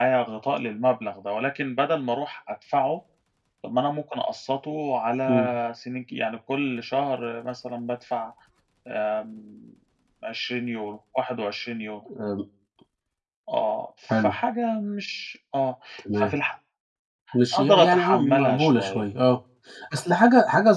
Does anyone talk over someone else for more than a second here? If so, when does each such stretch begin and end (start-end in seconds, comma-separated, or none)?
17.5-19.0